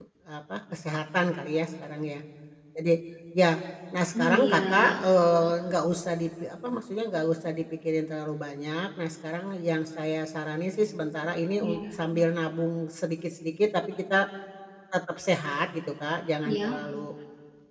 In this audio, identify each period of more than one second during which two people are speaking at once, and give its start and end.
4.2-5.5

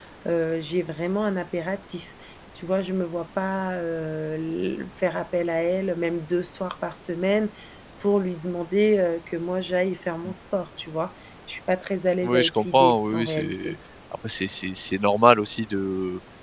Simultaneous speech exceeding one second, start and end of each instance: 12.2-13.8

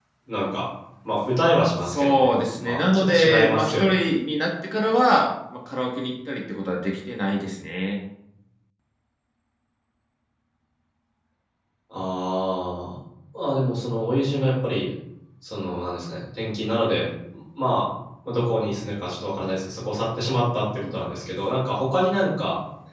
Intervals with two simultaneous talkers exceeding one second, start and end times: 1.8-4.0

